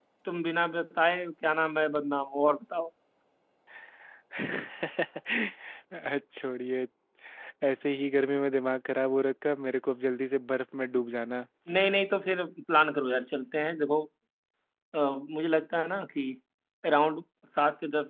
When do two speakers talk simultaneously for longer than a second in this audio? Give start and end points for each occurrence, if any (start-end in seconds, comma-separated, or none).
none